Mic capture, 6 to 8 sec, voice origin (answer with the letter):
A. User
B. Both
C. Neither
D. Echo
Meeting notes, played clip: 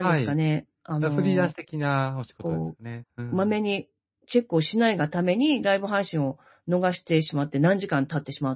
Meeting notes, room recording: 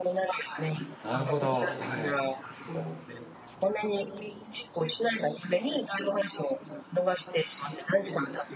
D